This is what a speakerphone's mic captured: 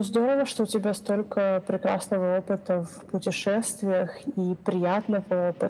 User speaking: No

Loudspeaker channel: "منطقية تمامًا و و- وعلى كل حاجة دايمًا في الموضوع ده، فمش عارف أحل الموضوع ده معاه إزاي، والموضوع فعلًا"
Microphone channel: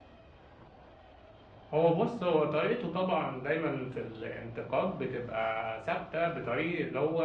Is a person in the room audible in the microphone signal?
Yes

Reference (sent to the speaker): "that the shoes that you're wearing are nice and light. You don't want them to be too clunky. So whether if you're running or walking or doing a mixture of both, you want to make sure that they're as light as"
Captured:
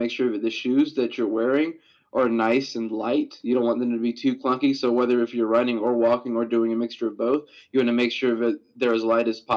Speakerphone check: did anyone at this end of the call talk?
No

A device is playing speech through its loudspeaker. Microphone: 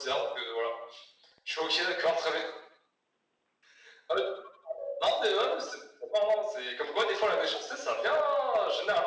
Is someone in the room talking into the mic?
No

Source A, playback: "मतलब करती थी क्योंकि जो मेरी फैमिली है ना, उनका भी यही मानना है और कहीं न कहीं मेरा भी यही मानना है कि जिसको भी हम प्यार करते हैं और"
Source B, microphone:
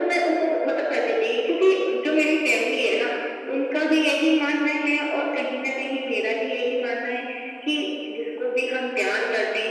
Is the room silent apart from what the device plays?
Yes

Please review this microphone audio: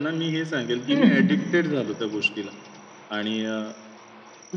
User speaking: Yes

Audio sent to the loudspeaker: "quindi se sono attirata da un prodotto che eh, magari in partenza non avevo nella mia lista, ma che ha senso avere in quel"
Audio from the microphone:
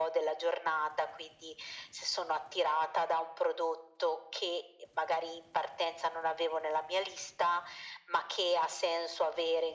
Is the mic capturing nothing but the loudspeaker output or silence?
Yes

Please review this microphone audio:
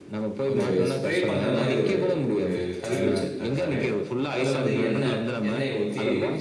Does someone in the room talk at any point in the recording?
Yes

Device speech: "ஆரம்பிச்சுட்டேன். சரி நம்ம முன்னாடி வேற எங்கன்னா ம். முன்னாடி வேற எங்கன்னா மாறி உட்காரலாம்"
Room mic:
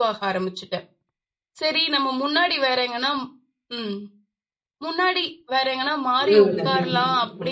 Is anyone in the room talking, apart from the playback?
Yes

